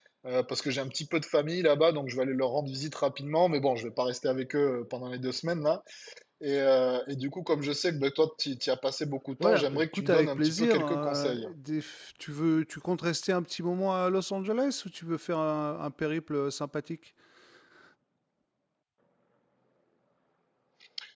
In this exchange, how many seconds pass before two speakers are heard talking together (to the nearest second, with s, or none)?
9 s